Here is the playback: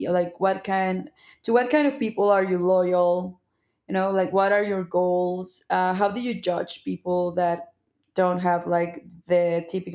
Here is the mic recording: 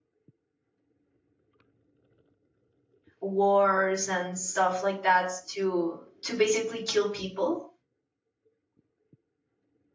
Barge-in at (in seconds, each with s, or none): 3.2 s